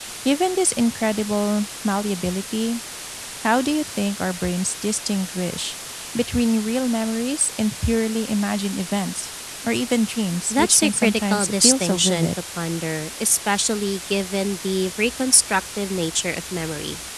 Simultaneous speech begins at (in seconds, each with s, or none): 10.5 s